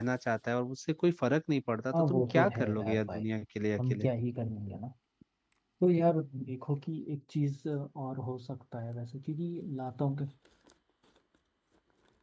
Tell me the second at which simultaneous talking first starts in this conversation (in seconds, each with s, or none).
1.9 s